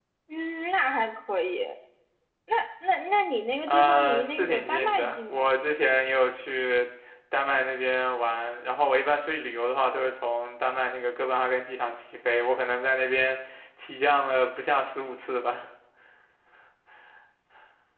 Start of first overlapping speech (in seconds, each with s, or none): 3.7 s